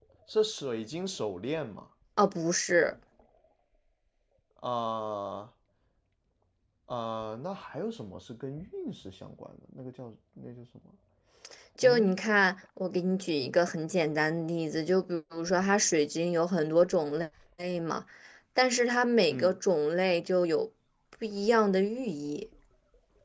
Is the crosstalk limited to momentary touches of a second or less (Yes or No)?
Yes